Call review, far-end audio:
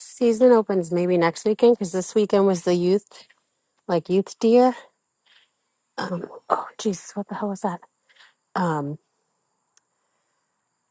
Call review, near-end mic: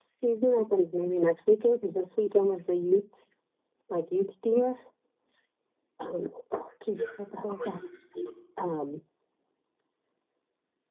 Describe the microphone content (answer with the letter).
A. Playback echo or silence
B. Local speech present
B